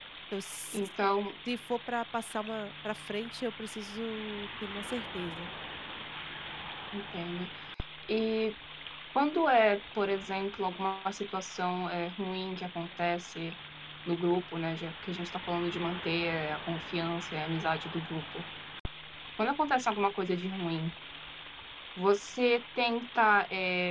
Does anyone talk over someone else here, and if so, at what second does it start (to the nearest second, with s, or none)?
none